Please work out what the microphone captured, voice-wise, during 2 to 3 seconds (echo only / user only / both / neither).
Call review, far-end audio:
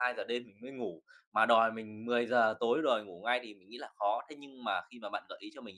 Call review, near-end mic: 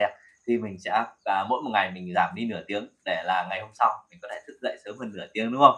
user only